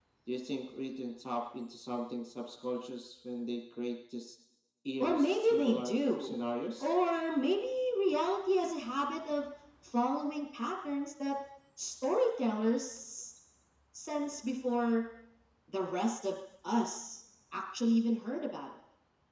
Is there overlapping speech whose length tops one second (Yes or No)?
Yes